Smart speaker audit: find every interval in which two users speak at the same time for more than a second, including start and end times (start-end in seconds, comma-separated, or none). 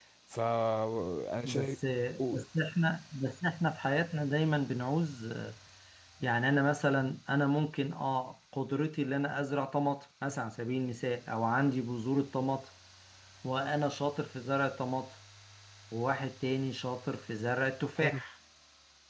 none